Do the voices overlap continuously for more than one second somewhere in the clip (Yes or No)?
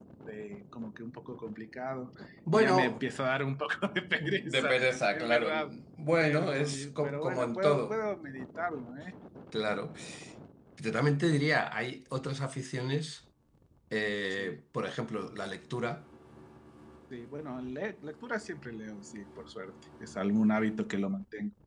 Yes